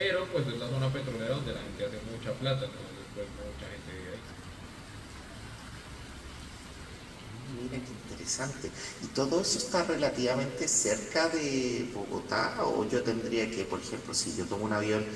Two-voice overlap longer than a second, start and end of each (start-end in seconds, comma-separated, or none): none